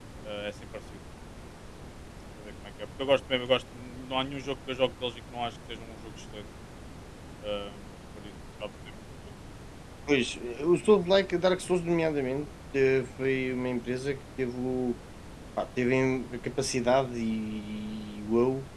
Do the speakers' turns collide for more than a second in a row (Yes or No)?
No